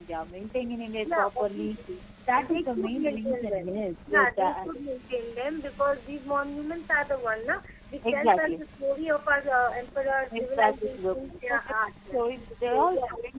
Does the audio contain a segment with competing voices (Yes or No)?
Yes